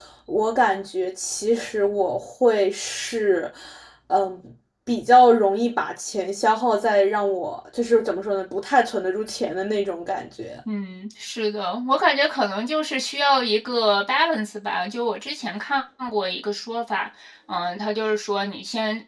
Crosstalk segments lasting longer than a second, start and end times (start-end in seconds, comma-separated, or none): none